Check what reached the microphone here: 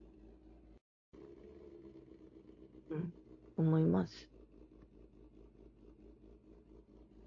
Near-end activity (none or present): present